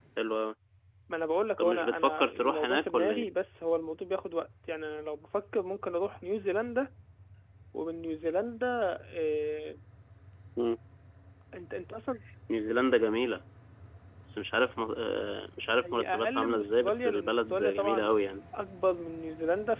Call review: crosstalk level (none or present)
present